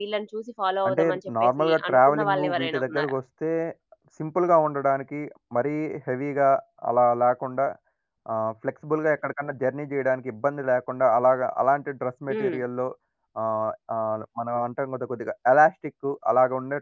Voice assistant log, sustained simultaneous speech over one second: present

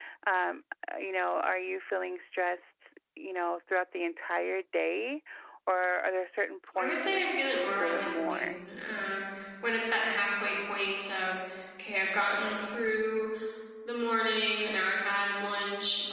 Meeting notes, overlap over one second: present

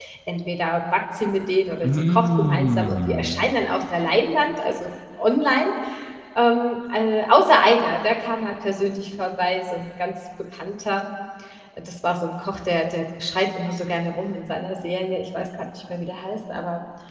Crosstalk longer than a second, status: present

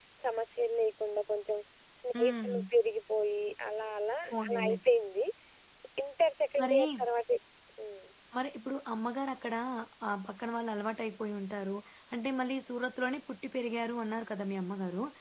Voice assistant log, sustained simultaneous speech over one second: none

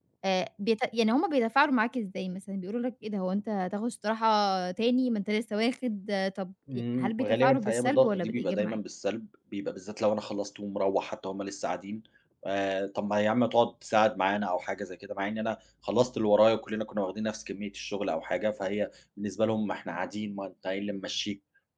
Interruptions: present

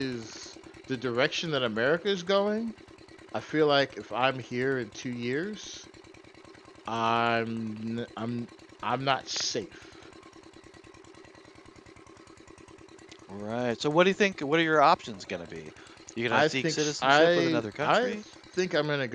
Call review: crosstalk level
present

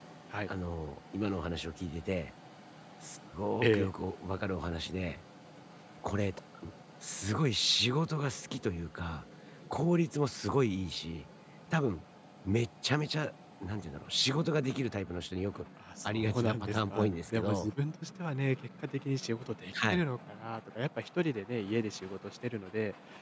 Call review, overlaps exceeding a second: present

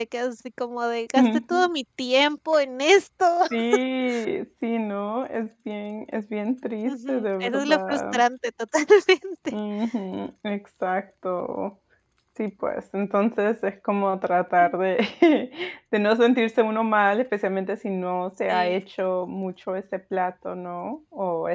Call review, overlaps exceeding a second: present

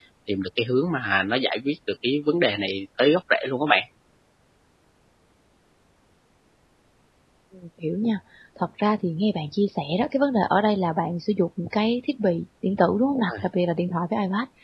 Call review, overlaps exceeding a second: none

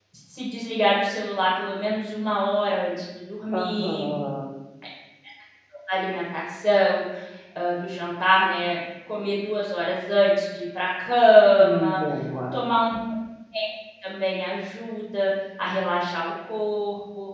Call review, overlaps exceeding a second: none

